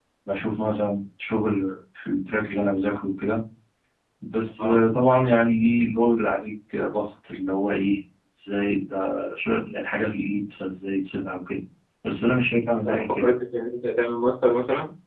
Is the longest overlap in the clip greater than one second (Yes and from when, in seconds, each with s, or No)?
No